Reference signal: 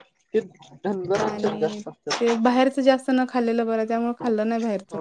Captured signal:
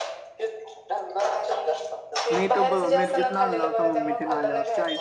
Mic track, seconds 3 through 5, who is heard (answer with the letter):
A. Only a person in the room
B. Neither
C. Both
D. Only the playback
C